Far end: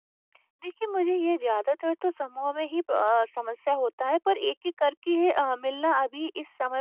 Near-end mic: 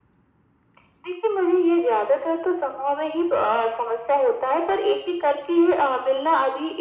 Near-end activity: none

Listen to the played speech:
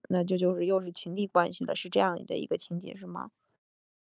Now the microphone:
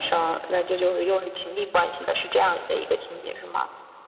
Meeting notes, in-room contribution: none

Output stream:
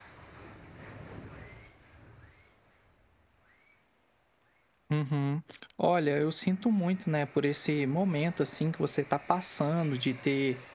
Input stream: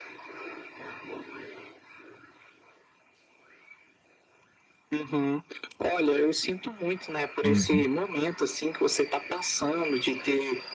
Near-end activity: present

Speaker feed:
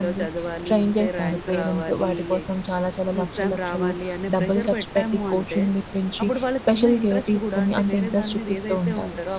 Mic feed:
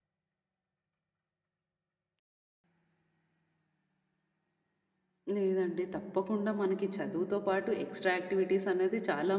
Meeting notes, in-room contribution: present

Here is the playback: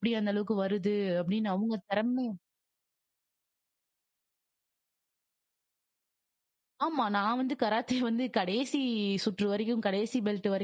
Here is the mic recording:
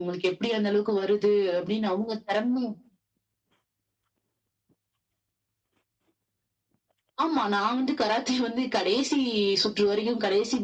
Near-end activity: none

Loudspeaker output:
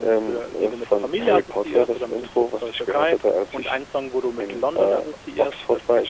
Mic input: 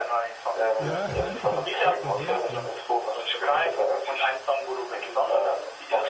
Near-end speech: present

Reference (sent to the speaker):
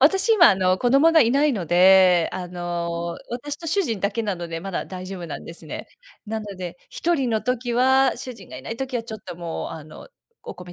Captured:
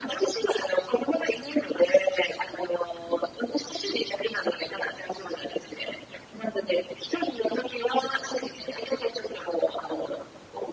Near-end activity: none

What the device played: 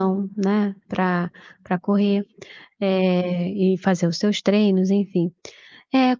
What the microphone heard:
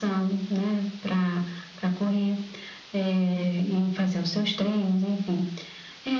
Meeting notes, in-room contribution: none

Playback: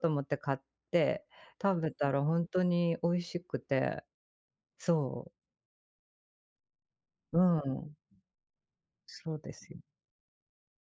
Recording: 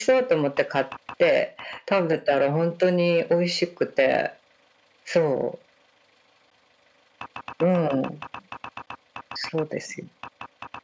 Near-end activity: none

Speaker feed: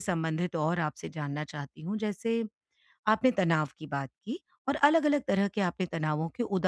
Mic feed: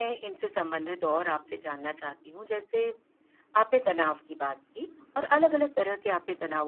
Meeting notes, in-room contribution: none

